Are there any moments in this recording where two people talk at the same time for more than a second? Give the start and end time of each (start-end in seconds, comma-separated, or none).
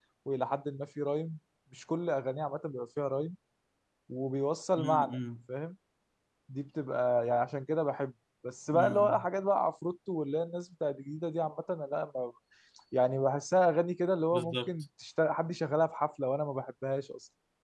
none